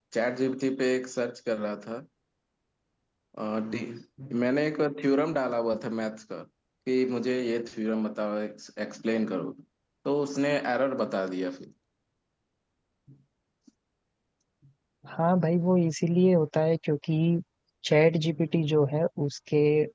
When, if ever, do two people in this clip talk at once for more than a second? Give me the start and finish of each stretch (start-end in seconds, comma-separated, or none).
none